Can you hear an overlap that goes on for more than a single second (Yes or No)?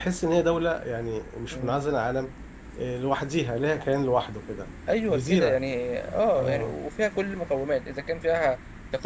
No